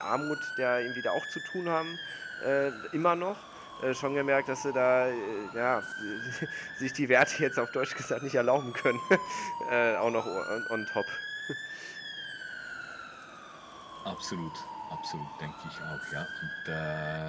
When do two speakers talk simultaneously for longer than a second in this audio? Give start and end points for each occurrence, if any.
none

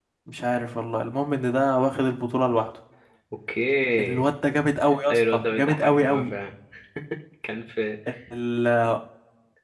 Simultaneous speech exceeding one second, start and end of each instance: 5.1-6.3

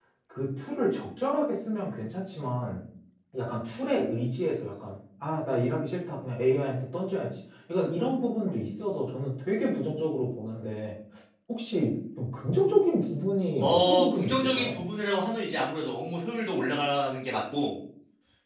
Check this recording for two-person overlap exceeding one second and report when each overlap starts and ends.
13.6-14.8

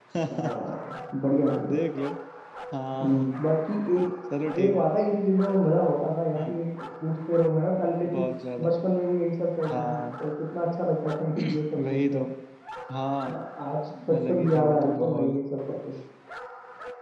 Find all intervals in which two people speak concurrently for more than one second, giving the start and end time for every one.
14.2-15.4

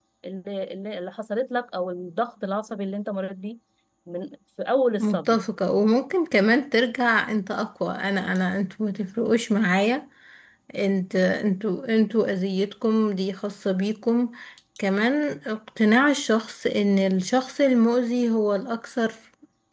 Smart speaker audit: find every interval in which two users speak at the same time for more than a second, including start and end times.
none

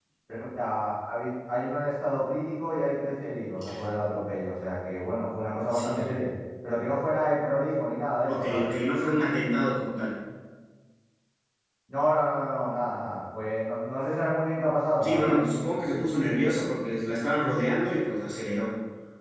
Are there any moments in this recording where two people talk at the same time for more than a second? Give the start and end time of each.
none

